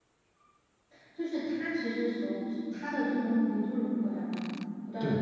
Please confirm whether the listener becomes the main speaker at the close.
Yes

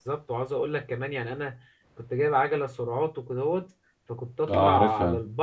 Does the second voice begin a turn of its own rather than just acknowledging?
No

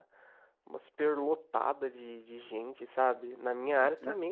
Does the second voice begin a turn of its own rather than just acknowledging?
No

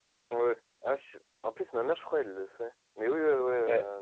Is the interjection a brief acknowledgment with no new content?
Yes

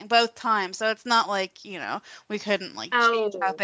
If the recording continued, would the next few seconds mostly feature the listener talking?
No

